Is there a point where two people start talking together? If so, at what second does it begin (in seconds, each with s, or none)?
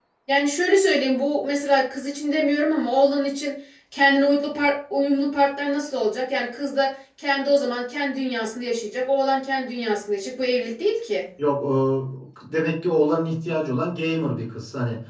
none